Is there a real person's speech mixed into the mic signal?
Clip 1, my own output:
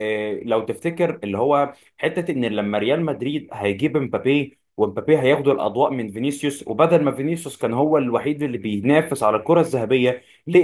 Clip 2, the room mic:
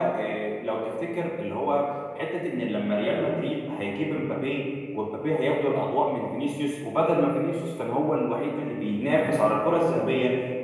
No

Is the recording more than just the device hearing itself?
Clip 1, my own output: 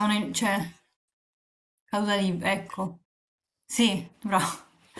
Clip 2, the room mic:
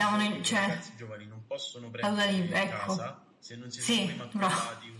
Yes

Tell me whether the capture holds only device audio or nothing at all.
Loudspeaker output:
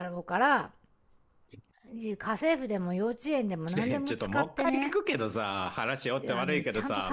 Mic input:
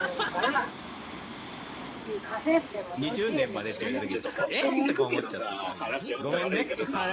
No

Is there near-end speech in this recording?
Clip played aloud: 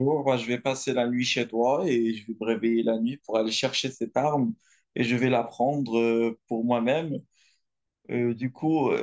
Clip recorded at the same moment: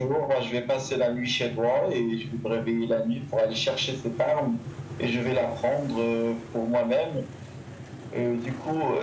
No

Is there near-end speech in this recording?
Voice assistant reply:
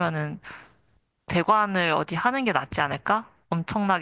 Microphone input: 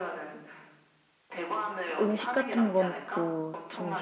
Yes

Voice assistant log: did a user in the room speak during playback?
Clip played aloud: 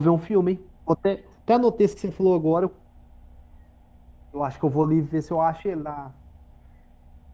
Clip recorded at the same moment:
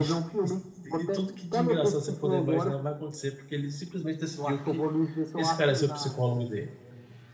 Yes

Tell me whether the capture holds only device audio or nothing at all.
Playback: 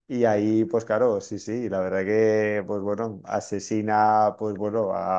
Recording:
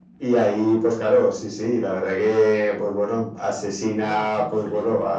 No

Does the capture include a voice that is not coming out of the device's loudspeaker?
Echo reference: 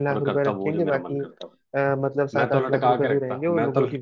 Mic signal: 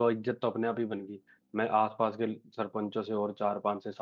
Yes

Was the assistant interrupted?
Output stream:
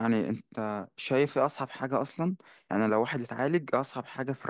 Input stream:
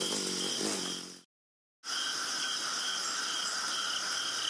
No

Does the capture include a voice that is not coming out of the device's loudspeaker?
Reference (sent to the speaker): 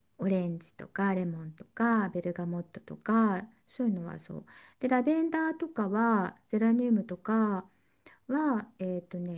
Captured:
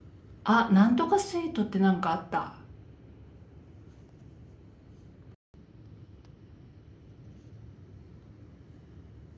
Yes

